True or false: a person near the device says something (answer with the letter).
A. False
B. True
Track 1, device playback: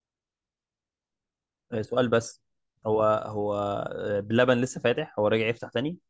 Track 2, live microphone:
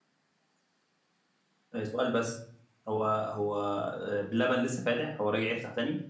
A